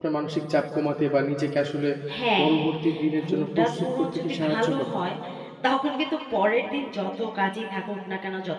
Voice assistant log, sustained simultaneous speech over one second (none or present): present